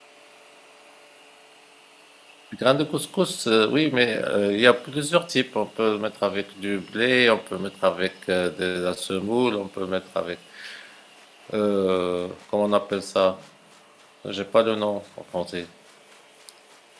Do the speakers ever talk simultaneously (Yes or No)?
No